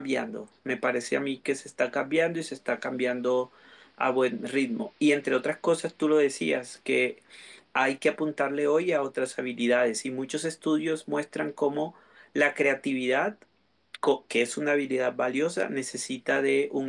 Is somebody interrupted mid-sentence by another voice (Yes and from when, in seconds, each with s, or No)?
No